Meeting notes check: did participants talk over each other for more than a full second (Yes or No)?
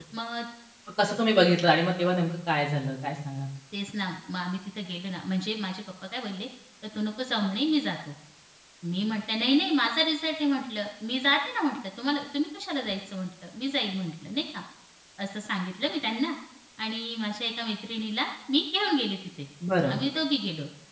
No